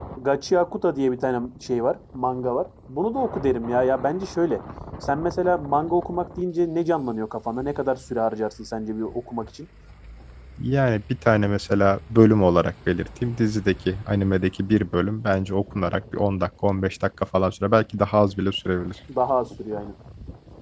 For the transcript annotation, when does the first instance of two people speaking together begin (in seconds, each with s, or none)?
none